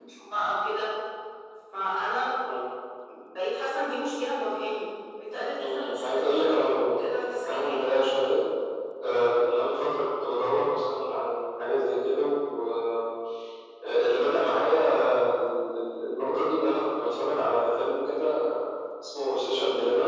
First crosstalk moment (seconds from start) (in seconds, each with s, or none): 5.6 s